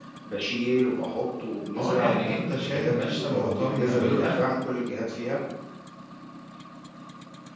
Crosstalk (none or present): present